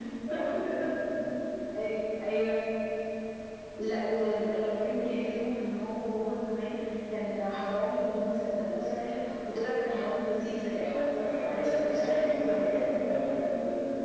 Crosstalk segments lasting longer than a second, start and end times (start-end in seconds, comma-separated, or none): 10.8-13.0